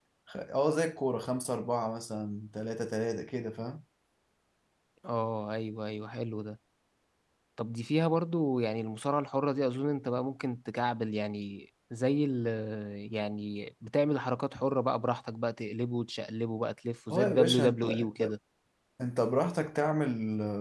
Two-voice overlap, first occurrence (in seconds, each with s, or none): 17.1 s